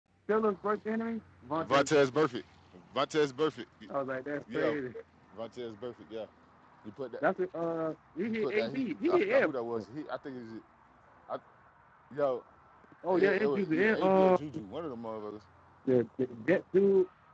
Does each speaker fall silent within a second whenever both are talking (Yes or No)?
No